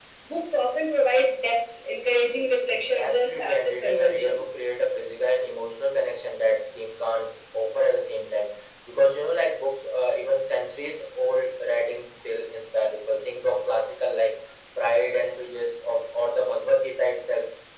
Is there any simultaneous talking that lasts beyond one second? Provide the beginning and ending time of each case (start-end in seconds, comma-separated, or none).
2.9-4.4